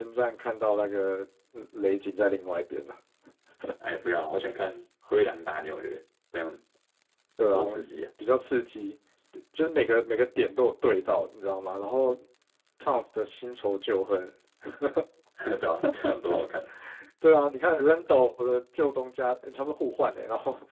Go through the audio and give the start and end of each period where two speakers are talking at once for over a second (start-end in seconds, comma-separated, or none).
none